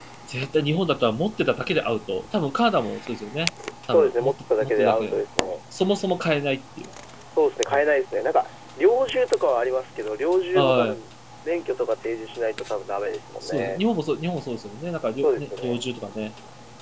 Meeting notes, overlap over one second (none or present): present